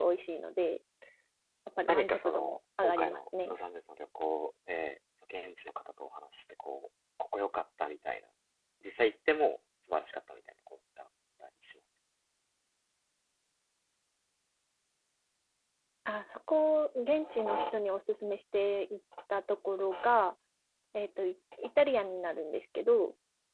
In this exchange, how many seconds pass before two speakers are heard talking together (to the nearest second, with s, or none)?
2 s